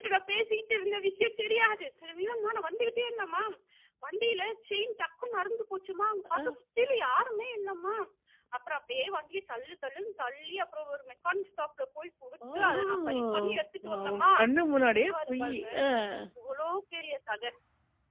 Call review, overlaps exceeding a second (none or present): present